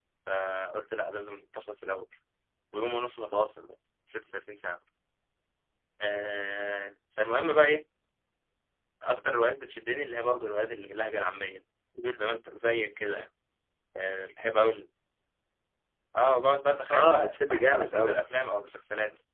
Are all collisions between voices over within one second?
No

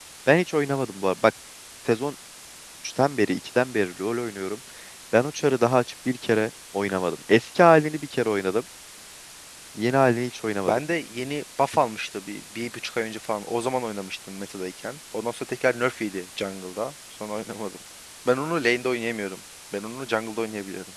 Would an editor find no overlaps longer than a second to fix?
Yes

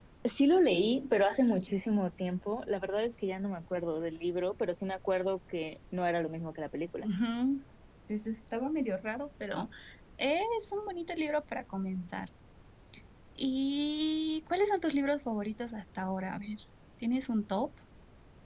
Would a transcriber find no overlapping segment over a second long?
Yes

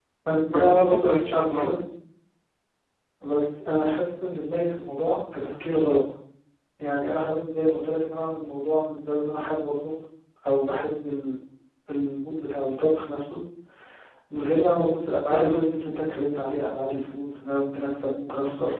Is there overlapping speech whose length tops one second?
Yes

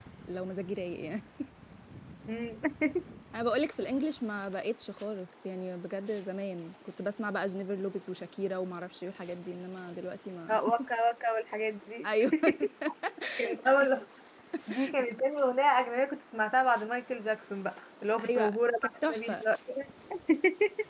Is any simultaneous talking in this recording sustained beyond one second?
Yes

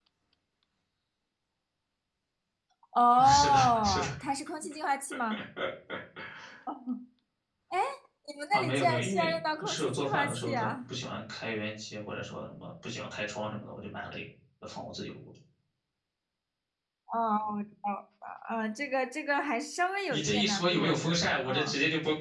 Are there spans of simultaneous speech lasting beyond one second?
Yes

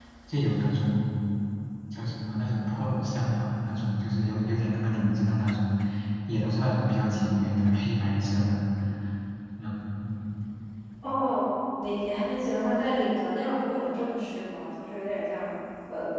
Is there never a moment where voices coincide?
Yes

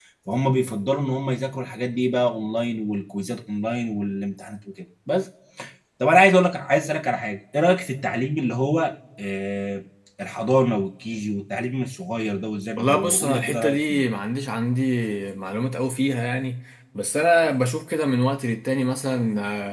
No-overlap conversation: No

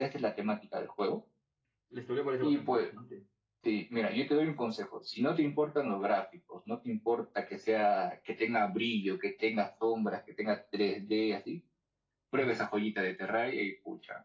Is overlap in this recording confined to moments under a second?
Yes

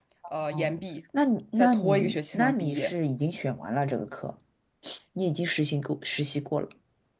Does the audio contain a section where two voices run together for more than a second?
Yes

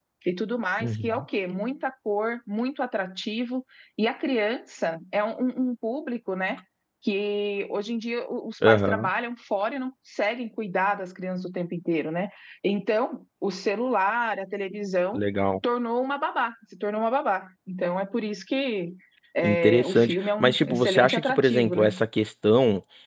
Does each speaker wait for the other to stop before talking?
No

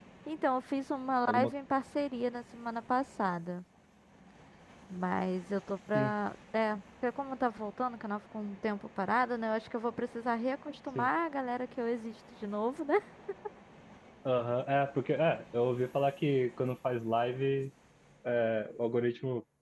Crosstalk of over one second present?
No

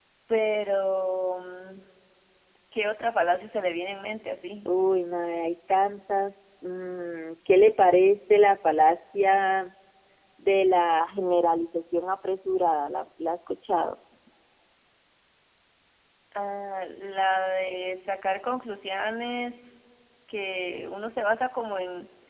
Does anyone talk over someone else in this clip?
No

